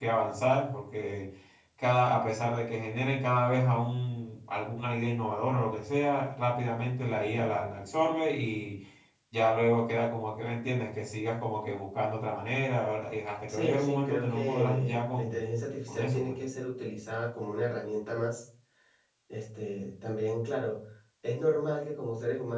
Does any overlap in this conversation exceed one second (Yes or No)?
Yes